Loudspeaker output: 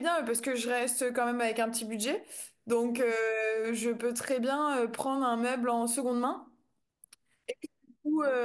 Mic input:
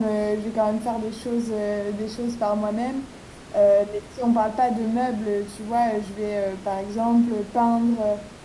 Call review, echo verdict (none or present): none